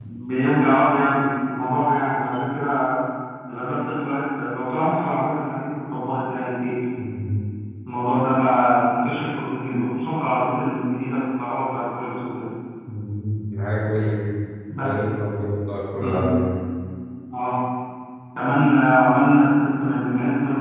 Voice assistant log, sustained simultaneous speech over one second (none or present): none